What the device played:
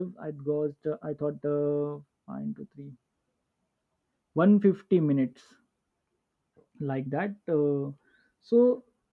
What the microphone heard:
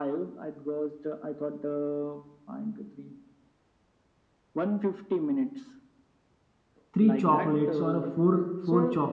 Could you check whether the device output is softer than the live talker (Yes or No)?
Yes